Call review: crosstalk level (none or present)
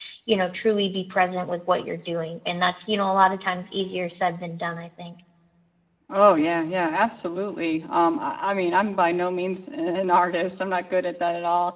none